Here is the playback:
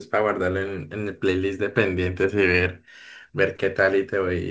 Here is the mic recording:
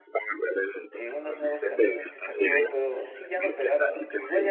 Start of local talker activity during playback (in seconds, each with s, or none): 0.9 s